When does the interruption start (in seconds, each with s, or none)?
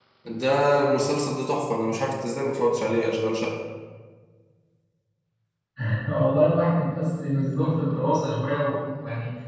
none